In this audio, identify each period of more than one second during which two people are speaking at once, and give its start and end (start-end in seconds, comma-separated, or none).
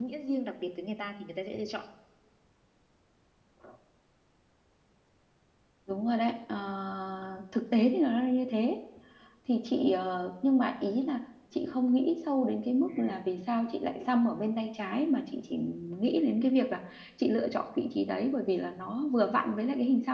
none